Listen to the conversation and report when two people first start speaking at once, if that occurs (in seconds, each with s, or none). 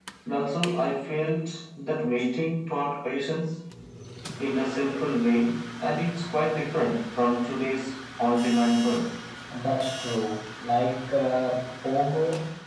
none